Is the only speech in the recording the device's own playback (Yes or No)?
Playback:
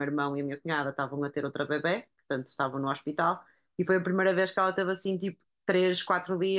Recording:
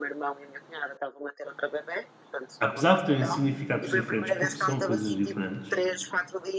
No